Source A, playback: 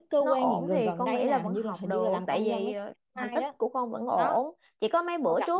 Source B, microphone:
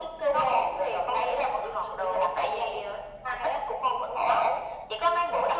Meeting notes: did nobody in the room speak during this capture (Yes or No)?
Yes